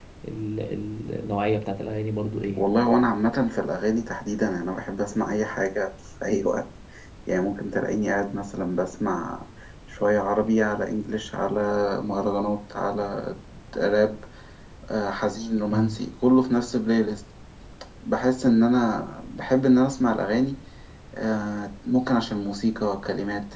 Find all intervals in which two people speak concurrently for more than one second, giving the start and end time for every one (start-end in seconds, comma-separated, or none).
none